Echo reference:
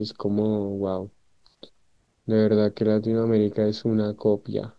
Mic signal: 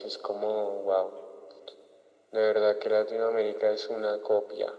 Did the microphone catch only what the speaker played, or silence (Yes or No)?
Yes